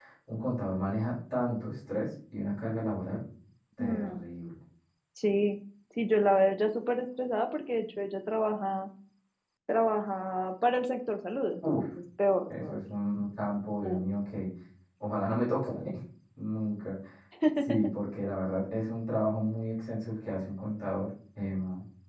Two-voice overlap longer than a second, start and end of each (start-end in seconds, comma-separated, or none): none